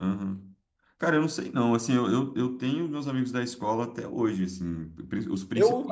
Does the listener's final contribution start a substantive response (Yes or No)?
Yes